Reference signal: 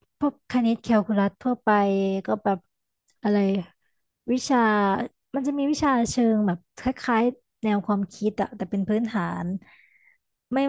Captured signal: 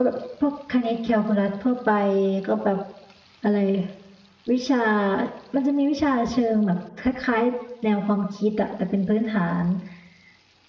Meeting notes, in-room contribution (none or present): none